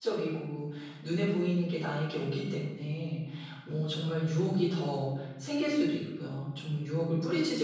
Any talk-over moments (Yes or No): No